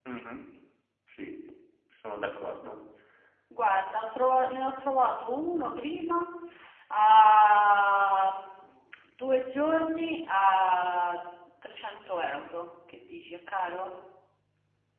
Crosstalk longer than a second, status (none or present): none